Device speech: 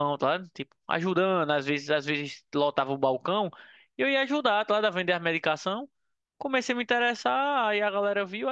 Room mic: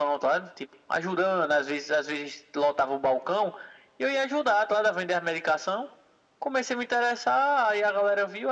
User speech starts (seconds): none

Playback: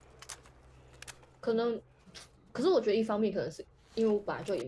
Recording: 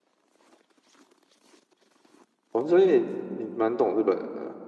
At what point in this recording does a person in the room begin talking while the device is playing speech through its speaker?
2.5 s

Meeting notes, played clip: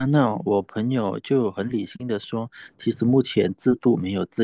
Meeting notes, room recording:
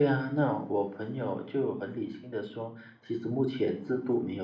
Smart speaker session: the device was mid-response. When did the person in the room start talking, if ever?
none

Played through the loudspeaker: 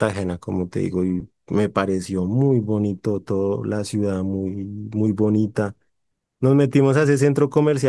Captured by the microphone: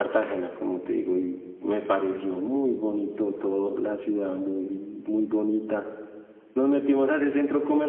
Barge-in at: none

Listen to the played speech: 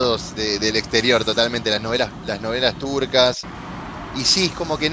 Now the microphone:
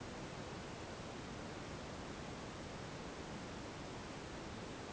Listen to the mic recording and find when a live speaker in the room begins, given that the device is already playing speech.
none

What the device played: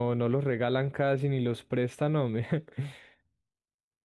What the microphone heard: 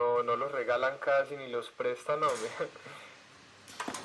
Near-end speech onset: none

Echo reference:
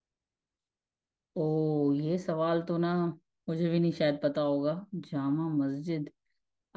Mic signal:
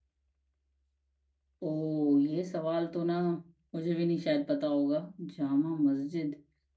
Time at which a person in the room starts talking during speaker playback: none

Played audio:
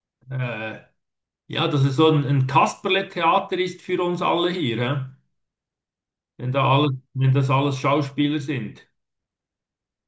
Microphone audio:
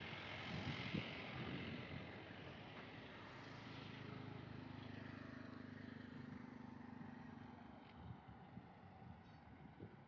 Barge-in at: none

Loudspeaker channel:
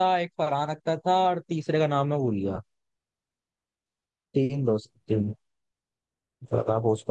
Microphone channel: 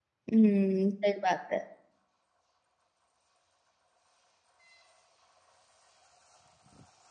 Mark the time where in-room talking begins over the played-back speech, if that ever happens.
0.3 s

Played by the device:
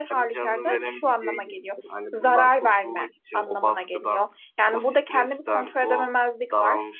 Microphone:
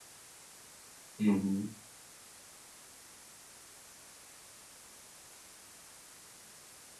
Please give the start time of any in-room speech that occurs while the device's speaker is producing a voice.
1.2 s

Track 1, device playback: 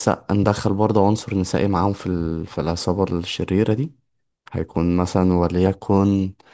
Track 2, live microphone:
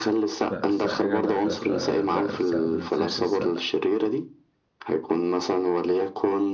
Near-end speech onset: 0.5 s

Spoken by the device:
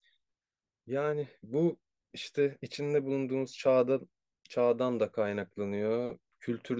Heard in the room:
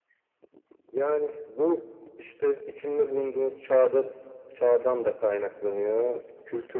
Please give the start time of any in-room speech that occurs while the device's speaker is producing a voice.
none

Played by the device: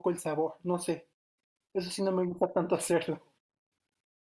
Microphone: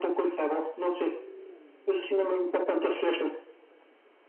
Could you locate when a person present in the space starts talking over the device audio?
none

